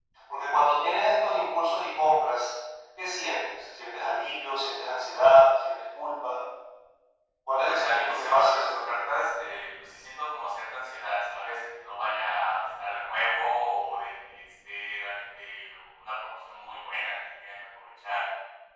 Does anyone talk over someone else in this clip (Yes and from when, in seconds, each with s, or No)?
Yes, from 7.6 s